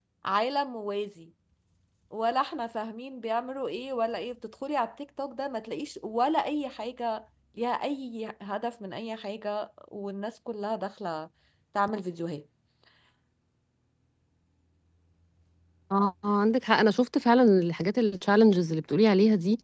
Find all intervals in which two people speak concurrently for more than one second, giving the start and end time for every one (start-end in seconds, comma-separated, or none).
none